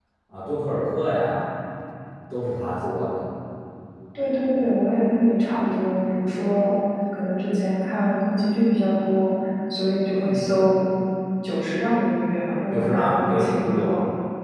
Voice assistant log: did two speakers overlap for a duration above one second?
Yes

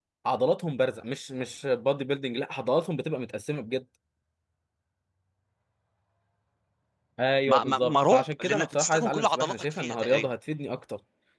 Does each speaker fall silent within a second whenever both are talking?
No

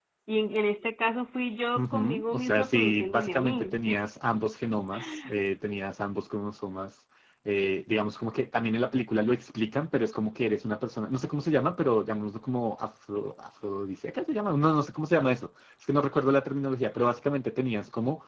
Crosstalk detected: Yes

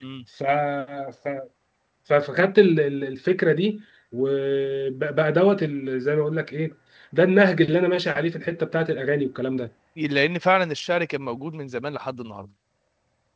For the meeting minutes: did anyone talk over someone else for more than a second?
No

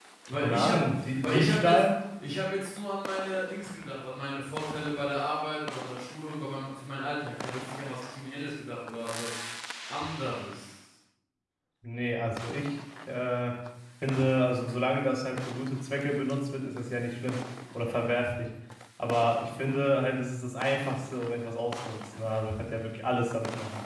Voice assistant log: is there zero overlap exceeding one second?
No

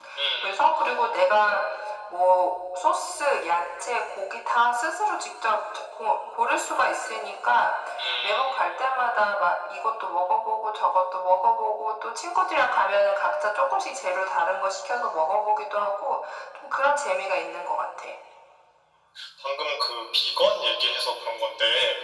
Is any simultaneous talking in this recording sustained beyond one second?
No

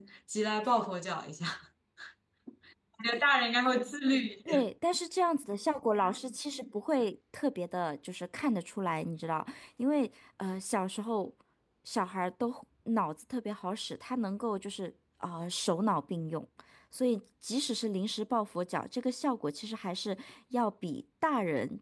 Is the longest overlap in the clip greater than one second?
No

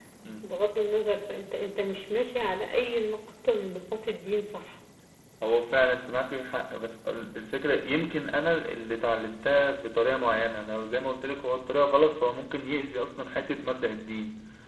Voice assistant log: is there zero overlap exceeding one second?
Yes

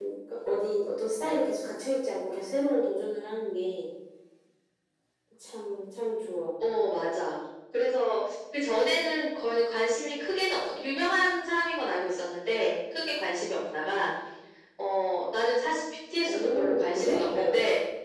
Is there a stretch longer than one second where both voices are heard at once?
Yes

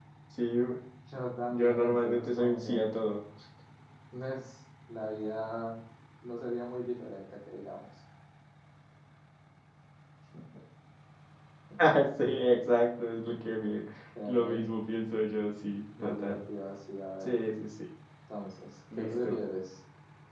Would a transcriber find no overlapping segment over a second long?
No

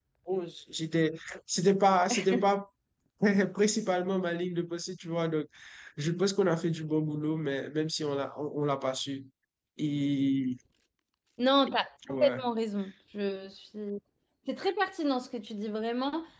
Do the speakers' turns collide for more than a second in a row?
No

